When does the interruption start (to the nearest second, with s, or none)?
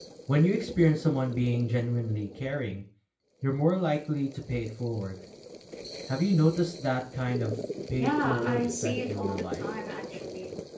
8 s